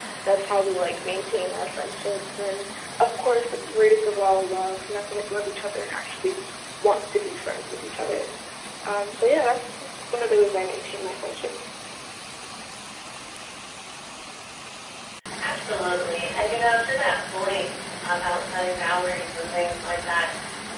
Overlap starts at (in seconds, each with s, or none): none